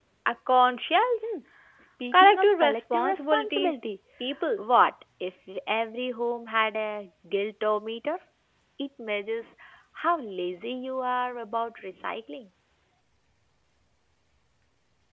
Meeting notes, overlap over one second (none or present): present